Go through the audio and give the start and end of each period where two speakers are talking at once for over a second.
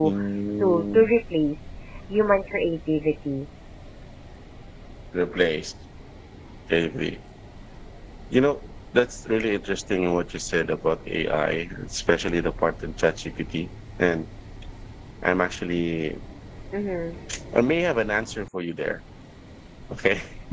none

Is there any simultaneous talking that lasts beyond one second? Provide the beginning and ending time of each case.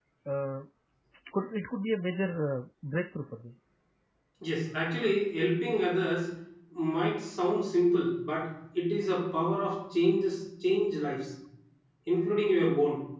none

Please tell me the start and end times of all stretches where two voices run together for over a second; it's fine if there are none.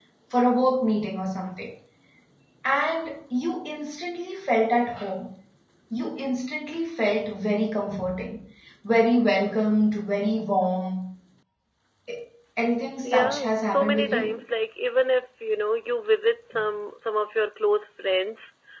13.0-14.4

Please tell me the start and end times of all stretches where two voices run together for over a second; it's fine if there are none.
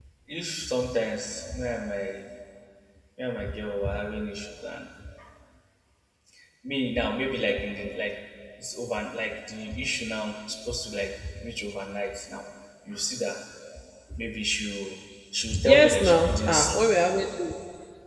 15.6-16.9

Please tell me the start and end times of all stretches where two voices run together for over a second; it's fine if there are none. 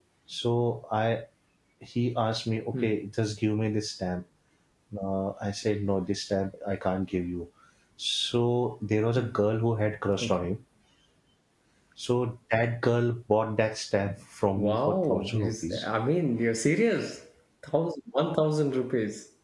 14.6-15.8

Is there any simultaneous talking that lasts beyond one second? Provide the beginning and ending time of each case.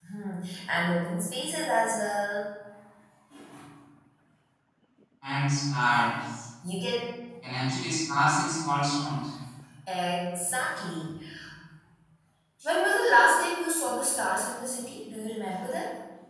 none

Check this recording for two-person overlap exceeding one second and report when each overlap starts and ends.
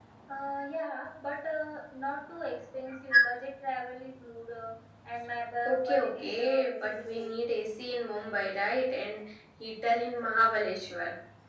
5.7-7.4

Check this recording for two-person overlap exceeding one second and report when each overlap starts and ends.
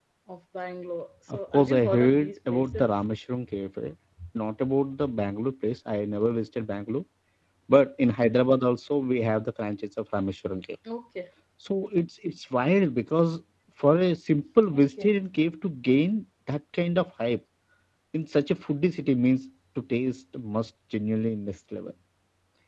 1.3-2.9

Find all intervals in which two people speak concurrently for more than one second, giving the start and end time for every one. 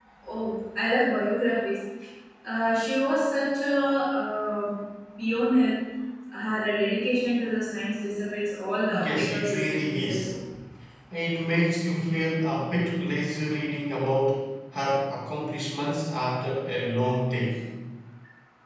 9.0-10.3

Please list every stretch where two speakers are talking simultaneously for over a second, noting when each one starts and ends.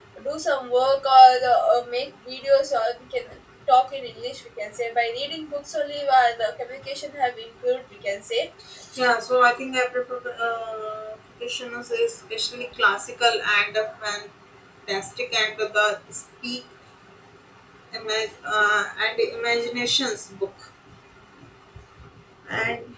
none

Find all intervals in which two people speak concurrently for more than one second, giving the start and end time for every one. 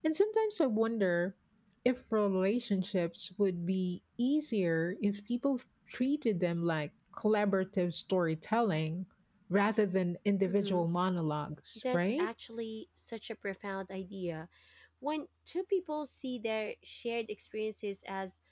none

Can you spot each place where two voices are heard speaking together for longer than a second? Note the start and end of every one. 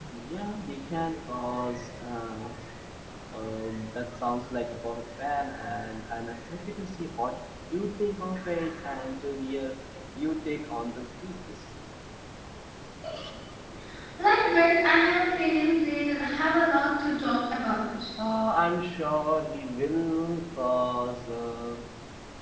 none

